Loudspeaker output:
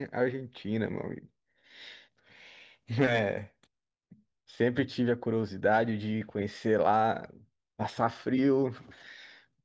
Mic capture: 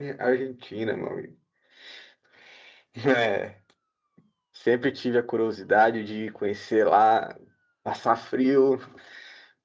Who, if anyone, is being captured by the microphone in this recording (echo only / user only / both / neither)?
echo only